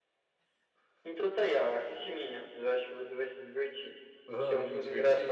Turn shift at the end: Yes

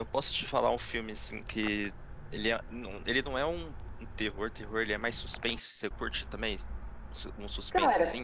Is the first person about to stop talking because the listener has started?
Yes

